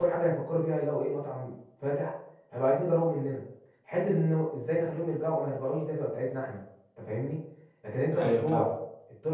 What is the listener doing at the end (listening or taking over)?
listening